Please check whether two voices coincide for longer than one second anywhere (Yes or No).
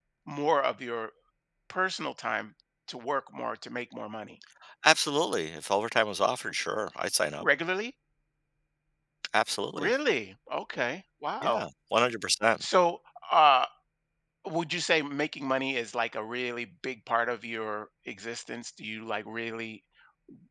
No